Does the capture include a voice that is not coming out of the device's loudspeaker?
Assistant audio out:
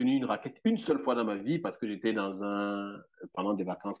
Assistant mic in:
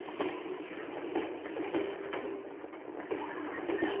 No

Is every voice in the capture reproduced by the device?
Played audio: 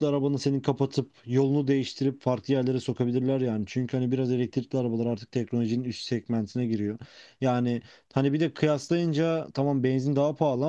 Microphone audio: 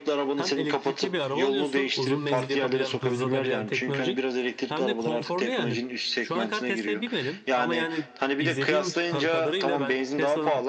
No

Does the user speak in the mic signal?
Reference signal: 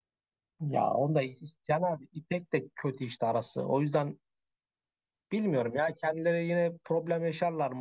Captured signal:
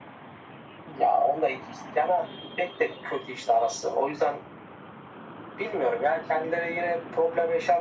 No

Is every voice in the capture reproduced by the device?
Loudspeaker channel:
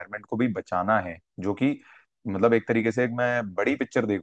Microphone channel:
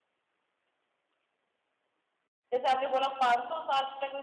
No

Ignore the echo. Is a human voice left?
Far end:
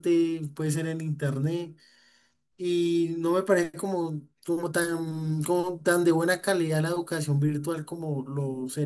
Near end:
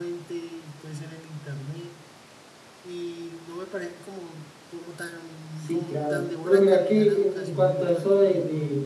Yes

